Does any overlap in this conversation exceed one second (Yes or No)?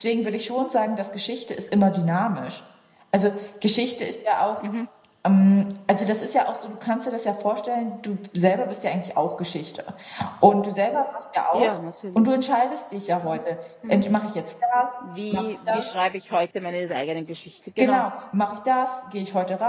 No